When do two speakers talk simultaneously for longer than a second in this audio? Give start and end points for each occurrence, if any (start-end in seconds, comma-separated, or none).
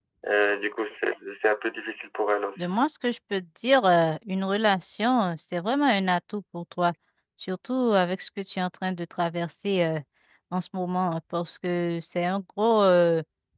none